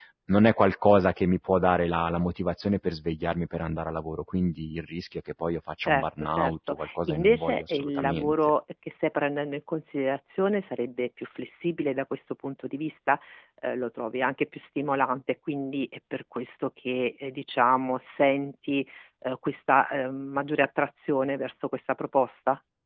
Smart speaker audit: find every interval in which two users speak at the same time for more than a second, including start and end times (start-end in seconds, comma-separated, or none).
5.8-8.3